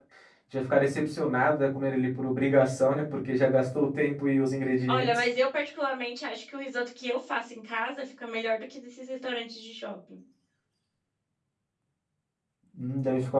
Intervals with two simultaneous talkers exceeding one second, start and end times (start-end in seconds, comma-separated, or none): none